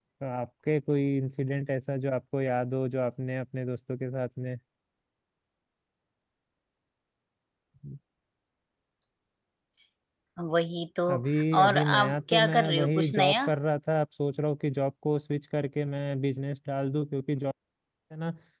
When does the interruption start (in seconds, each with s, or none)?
11.6 s